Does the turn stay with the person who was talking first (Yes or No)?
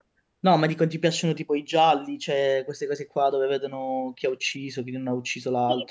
No